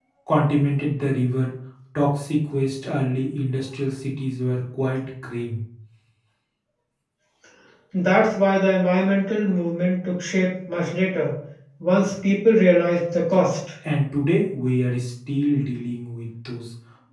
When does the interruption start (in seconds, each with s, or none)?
none